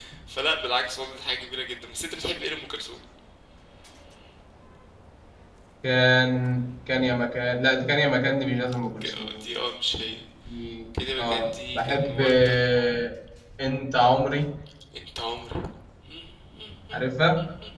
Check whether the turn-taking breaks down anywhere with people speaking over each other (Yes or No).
Yes